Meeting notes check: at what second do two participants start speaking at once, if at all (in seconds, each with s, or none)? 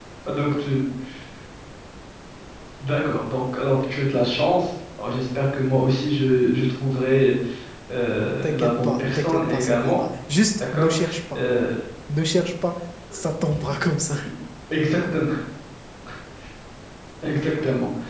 8.4 s